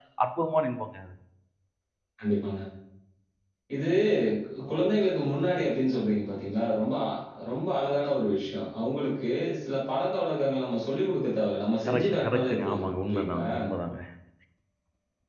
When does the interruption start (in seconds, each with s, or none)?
11.9 s